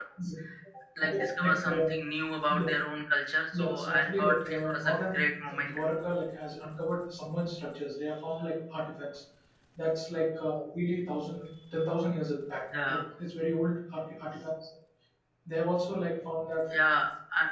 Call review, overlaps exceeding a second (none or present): present